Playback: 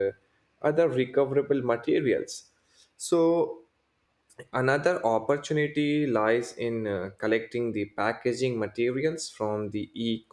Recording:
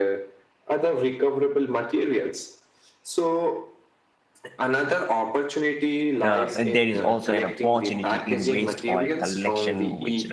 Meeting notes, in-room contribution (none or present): present